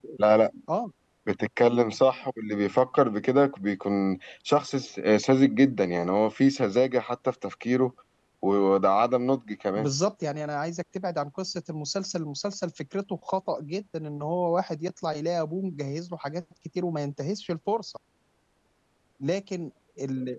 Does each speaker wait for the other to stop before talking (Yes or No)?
Yes